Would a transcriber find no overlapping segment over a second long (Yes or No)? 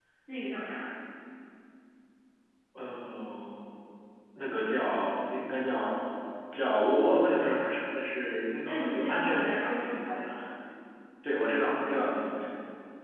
No